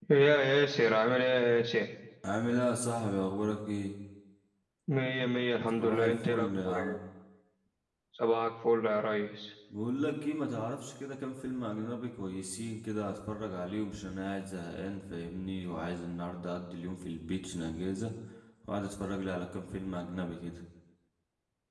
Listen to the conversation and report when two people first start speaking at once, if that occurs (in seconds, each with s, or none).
5.8 s